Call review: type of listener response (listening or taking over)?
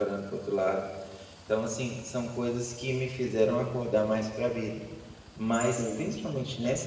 listening